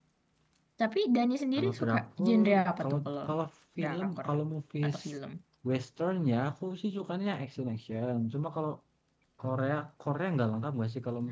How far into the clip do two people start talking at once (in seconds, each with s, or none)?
1.6 s